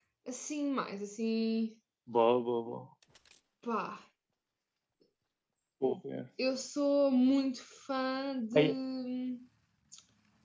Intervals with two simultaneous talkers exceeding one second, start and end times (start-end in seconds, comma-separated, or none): none